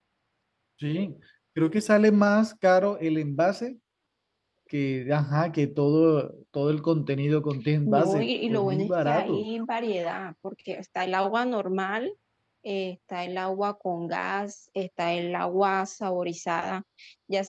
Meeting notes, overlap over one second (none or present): present